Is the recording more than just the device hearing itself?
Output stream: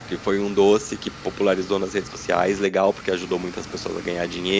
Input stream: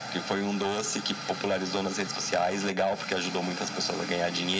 No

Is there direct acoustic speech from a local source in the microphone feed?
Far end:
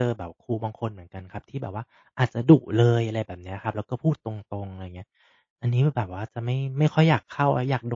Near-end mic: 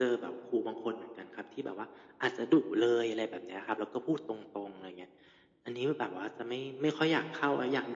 No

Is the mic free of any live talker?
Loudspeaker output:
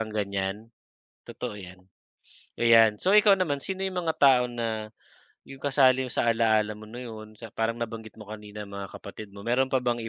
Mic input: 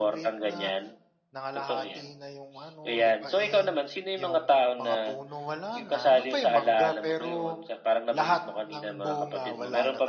No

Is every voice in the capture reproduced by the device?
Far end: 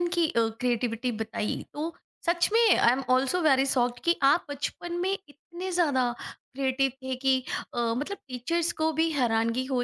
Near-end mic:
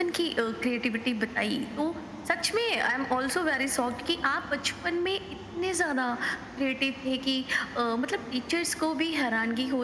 Yes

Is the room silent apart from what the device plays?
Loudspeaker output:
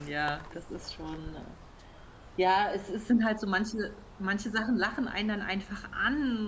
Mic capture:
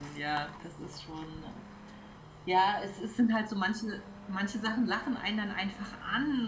Yes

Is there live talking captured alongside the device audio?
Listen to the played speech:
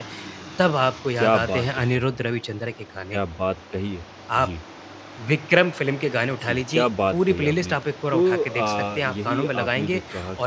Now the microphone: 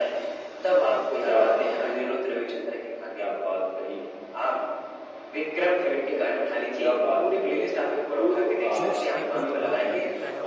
Yes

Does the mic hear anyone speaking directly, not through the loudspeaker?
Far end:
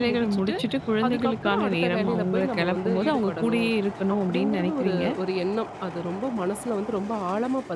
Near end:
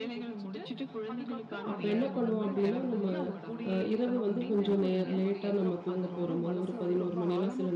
Yes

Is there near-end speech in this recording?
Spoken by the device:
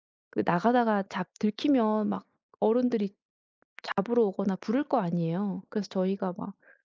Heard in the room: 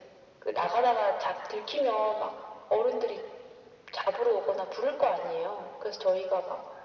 No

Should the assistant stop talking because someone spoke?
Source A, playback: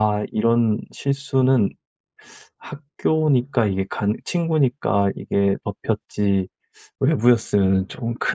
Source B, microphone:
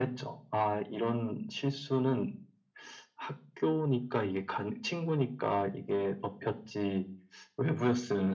No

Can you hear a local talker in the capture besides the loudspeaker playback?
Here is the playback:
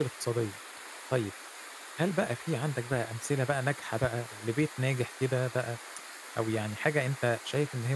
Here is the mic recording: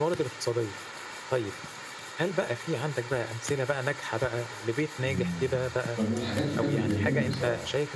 Yes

